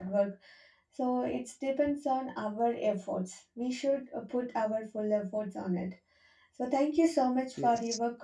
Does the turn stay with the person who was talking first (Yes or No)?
Yes